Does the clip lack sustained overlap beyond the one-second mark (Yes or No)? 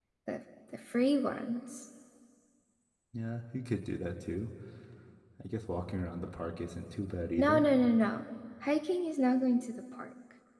Yes